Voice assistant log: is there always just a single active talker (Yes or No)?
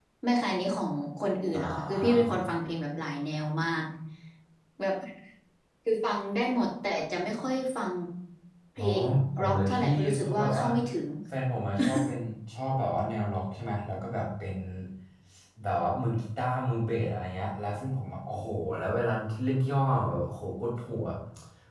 No